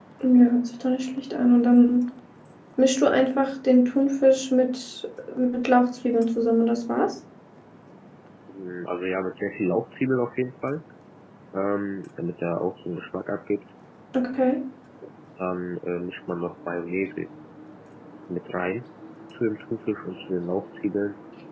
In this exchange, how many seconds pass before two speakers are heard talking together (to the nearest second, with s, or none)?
none